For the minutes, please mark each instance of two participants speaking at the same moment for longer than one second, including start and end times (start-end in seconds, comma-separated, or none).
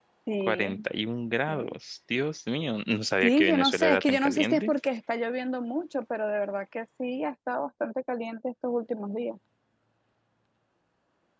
3.2-4.7